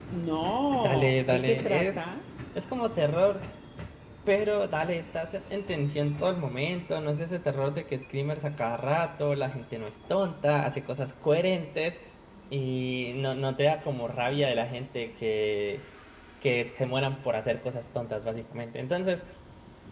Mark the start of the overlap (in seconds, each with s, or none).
0.7 s